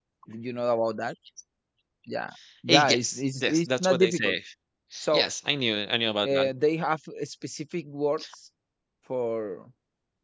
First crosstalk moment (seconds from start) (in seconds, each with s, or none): 2.7 s